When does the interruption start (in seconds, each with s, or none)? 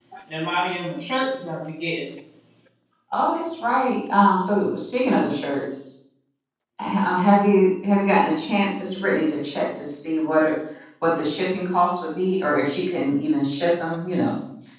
none